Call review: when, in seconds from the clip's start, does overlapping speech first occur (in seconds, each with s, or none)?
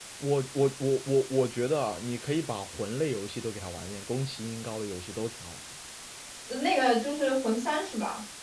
none